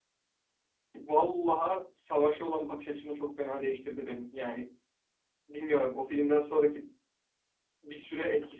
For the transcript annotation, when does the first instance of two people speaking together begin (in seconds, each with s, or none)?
none